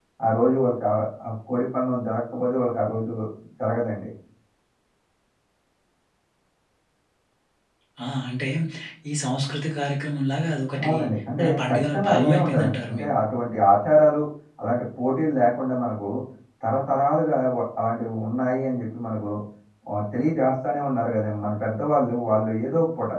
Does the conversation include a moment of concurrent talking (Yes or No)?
Yes